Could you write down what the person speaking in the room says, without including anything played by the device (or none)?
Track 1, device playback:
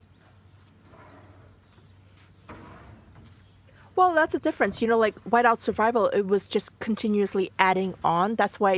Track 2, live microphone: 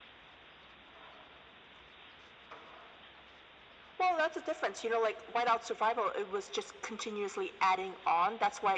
none